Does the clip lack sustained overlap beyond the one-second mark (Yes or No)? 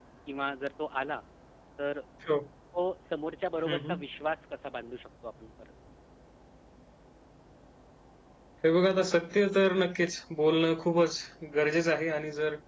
Yes